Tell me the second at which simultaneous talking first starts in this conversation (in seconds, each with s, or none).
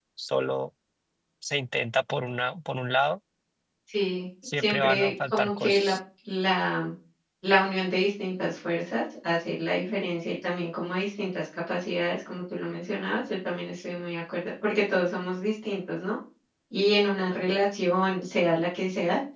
4.6 s